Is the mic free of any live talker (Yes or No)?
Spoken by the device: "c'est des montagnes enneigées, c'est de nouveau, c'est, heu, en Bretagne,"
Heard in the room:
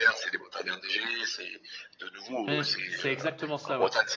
No